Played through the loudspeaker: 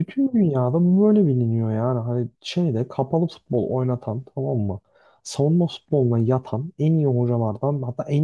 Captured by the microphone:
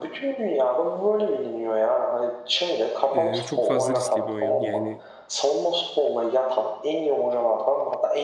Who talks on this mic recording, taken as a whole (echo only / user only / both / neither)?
both